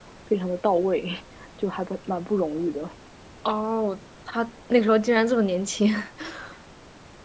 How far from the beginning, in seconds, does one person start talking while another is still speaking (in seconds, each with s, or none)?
none